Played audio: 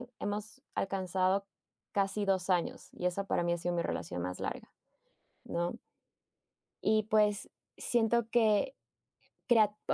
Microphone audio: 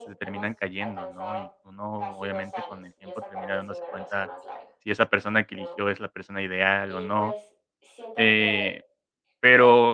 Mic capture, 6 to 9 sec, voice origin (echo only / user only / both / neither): both